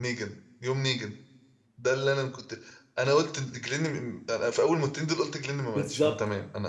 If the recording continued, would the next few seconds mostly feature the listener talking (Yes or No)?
Yes